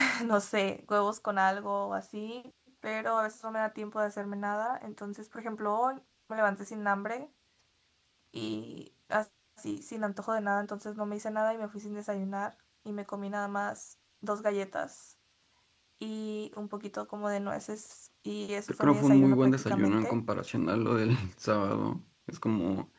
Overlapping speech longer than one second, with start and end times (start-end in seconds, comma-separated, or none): 18.7-20.2